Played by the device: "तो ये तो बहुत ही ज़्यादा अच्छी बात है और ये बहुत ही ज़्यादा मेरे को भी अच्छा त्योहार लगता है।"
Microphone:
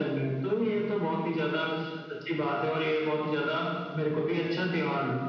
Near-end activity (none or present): none